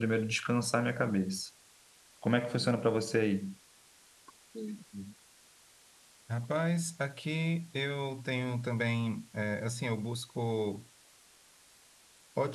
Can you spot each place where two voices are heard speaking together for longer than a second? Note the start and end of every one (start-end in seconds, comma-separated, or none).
none